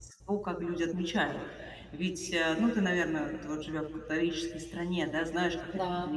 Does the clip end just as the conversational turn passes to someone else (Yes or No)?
No